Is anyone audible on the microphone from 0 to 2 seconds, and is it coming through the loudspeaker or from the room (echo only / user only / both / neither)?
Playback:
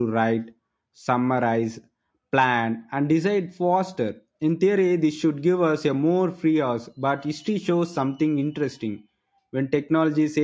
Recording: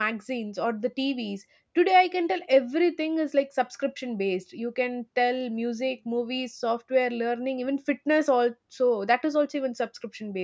user only